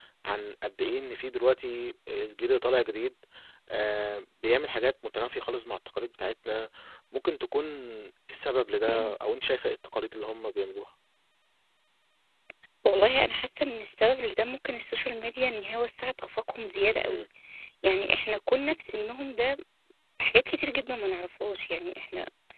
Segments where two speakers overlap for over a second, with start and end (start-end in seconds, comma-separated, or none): none